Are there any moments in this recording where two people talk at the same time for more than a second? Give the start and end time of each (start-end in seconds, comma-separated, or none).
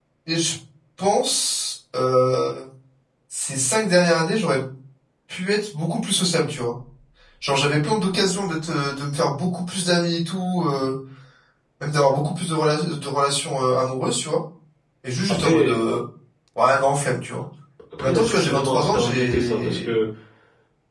18.0-19.9